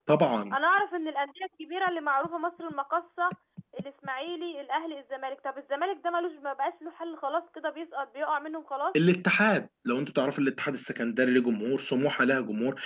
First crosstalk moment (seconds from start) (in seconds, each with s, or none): none